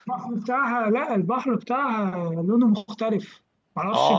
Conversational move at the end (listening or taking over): taking over